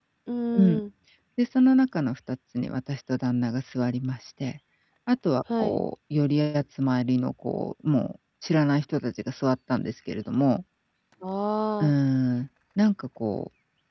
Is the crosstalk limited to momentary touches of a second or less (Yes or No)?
Yes